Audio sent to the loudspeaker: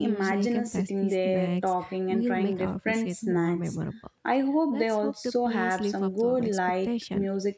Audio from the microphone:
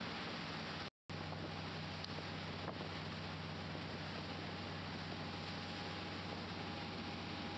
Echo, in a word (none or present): none